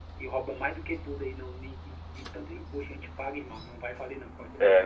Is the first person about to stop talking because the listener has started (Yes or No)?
Yes